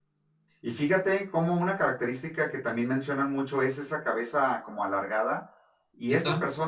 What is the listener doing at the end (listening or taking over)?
listening